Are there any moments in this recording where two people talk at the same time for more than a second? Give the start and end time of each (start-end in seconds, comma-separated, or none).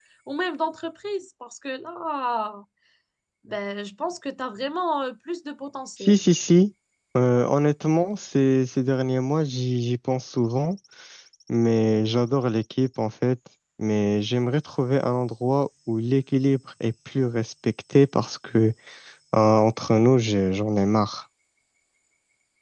none